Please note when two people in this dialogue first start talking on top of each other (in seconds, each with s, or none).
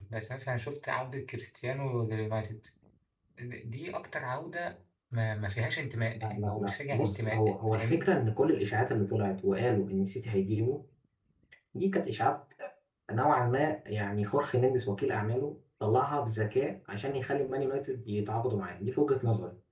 6.1 s